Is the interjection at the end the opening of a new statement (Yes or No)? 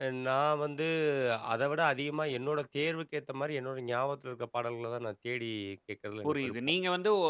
Yes